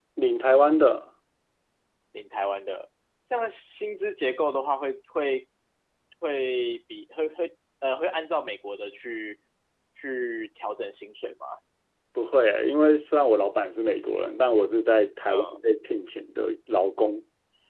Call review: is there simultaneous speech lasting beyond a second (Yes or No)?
No